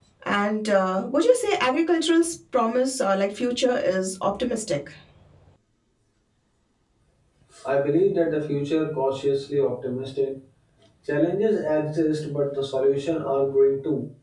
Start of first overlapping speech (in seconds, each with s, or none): none